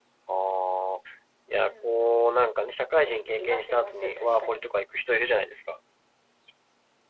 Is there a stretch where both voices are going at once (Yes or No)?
Yes